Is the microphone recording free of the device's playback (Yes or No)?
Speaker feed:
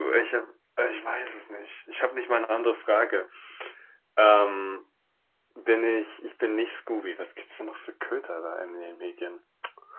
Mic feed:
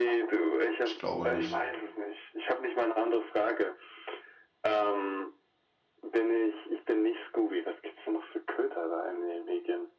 No